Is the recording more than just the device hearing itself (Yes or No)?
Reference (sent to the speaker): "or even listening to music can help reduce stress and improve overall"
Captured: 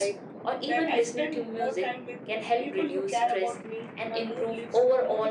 Yes